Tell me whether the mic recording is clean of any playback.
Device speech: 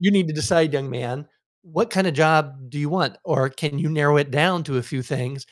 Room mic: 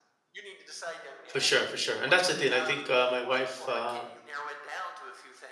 No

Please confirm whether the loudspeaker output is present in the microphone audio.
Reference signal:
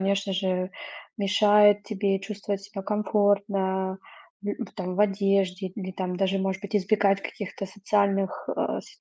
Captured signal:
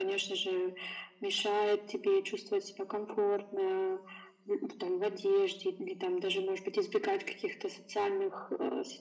Yes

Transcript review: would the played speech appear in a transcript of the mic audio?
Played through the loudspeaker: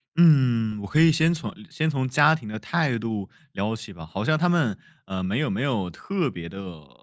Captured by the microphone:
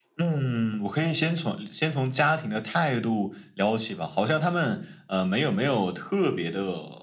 Yes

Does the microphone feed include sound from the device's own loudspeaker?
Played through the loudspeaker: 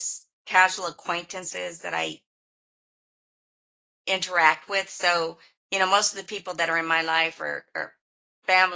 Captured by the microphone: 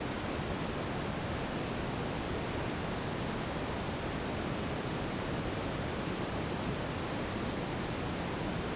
No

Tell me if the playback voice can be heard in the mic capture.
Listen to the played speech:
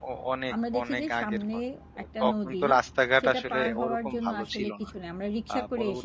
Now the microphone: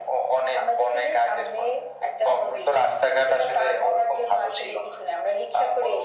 Yes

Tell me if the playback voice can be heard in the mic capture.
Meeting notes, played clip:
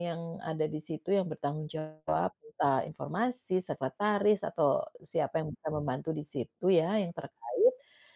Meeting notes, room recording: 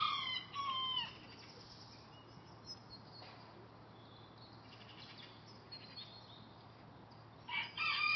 No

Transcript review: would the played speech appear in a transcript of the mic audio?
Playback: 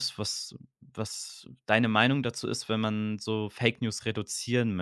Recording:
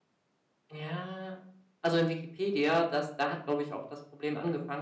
No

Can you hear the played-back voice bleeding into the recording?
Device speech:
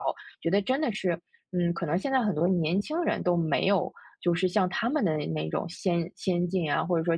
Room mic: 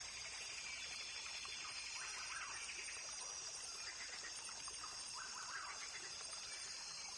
No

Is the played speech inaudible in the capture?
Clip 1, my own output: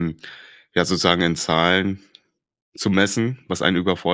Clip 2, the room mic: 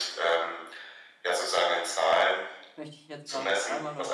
No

